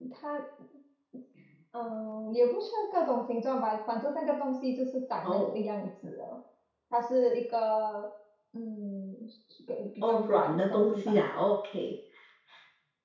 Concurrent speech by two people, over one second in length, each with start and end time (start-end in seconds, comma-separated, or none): 10.0-11.2